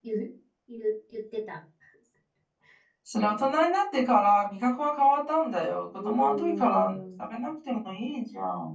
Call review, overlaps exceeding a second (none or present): present